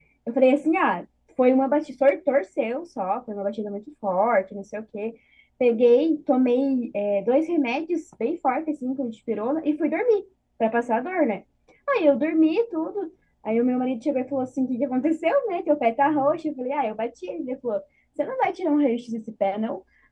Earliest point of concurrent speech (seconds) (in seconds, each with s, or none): none